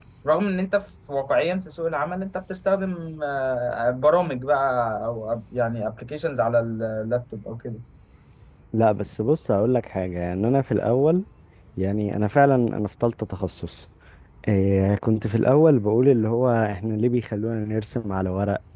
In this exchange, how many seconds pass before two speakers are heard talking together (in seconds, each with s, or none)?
none